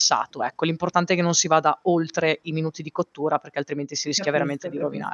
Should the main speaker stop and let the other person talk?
Yes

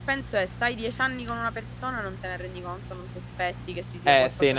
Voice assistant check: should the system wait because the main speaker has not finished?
No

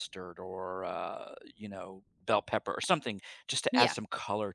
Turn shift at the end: No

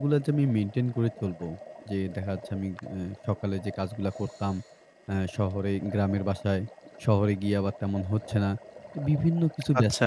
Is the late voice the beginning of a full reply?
No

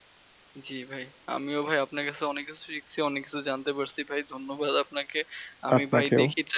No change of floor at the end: Yes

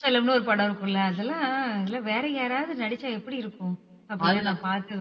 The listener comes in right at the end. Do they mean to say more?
Yes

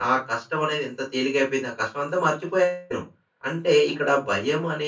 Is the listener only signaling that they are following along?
Yes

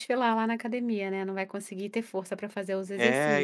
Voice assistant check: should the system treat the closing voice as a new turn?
Yes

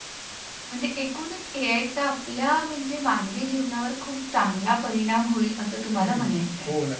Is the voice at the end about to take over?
Yes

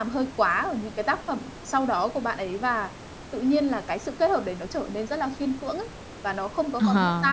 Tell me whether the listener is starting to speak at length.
Yes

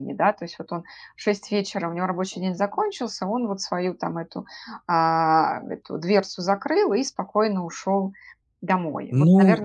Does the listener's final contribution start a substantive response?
Yes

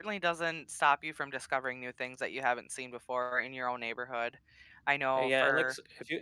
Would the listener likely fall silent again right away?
No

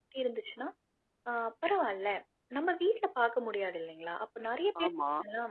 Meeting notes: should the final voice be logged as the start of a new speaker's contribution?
No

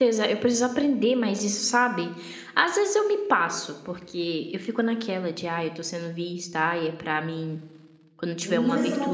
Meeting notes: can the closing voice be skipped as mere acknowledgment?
No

